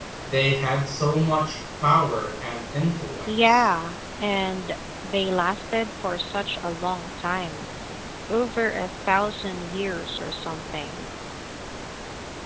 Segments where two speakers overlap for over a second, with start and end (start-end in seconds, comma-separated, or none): none